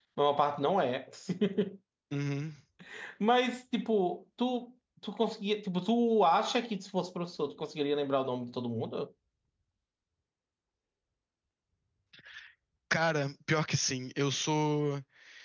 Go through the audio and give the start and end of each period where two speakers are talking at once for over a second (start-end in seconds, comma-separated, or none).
none